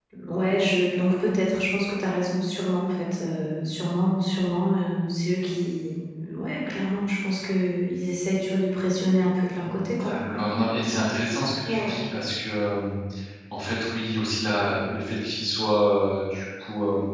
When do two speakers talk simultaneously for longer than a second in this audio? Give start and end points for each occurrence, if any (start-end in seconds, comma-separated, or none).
none